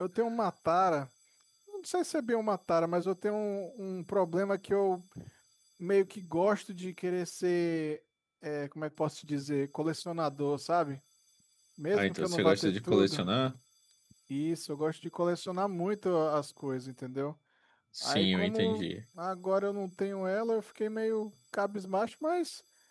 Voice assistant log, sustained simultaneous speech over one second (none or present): present